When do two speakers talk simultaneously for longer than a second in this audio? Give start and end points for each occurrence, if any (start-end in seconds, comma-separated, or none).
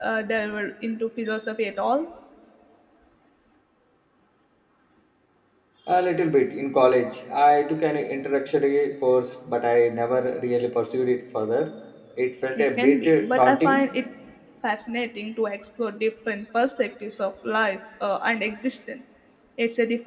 12.6-13.8